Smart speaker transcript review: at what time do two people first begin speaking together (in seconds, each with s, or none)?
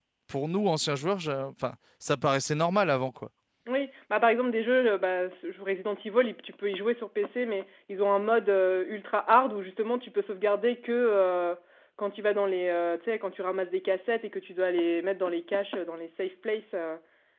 none